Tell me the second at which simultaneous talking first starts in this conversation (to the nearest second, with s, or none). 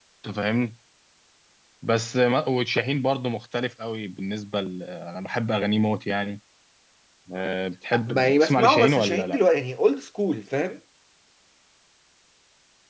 8 s